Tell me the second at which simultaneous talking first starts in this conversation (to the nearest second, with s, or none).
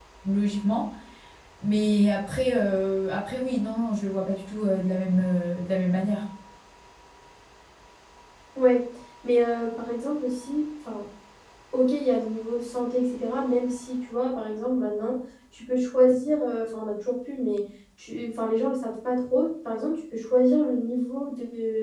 none